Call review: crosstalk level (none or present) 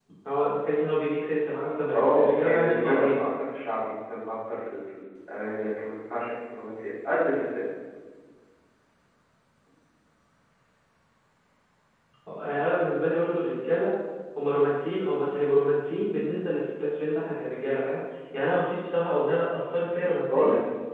present